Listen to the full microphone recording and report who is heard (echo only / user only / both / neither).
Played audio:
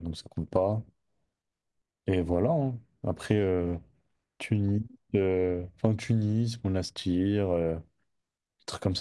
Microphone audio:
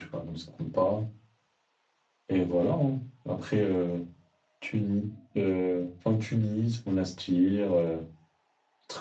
echo only